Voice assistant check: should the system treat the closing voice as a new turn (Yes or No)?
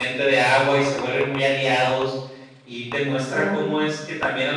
No